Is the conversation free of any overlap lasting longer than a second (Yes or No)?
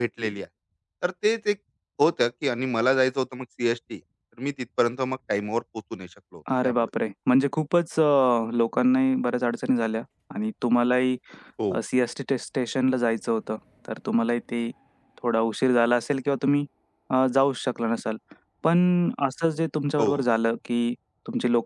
Yes